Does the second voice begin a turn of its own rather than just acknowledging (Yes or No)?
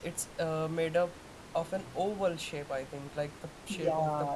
Yes